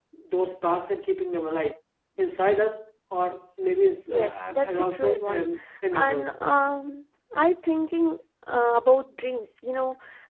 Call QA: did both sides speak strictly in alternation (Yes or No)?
No